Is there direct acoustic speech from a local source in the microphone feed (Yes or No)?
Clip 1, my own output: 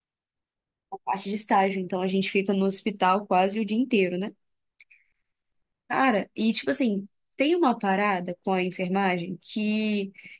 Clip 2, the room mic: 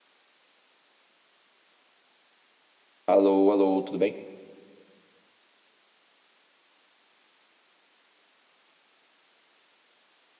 Yes